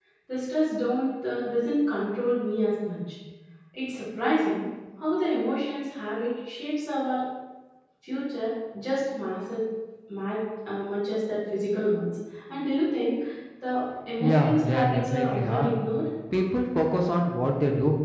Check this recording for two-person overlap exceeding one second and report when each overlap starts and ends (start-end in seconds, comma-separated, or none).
14.2-15.8